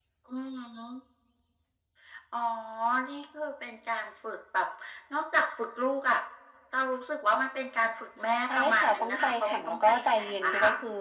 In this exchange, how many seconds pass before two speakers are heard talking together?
8.4 s

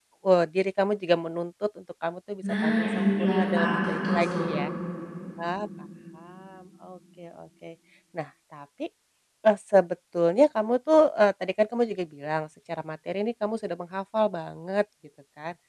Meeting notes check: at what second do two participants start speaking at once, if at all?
2.4 s

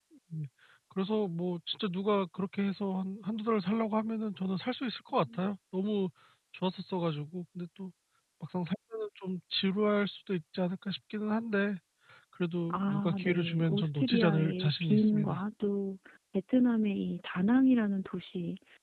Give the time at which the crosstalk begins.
12.7 s

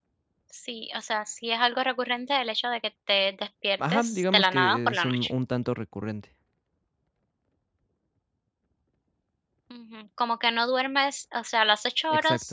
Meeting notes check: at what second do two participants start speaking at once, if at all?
3.8 s

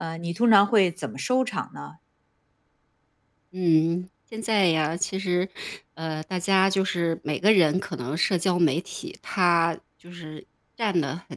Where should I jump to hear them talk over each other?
none

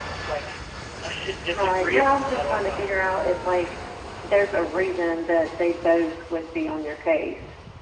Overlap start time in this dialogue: 1.5 s

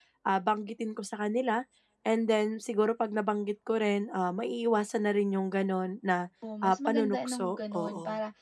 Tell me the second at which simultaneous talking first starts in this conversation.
6.4 s

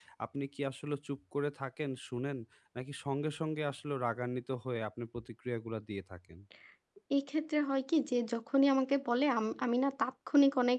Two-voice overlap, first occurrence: none

